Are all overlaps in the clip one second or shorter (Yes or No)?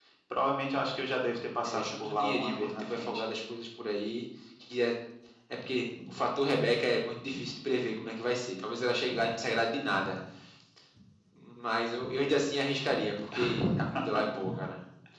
No